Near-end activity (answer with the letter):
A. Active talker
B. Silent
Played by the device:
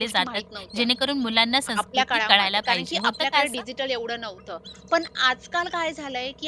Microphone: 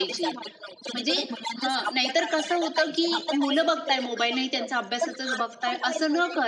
A